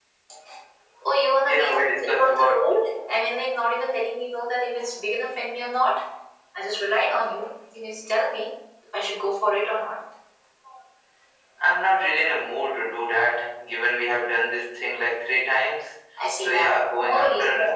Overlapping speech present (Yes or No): Yes